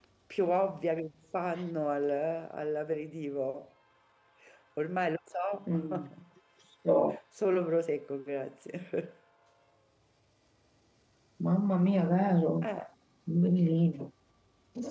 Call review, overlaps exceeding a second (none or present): none